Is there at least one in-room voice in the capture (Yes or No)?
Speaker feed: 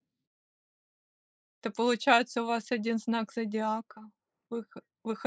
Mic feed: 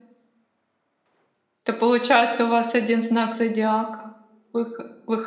No